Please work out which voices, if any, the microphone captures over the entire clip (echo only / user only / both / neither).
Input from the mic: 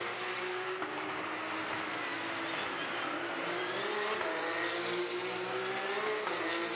neither